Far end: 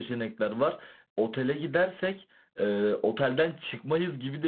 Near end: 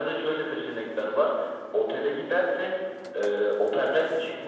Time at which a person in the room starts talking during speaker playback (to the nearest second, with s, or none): none